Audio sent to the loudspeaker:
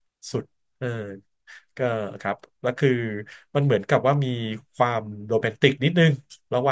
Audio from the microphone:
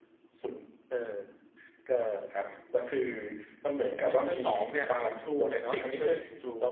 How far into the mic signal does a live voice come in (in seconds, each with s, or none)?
3.9 s